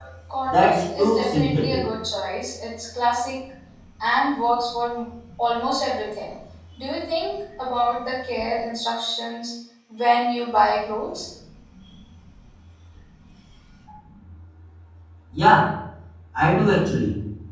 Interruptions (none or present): present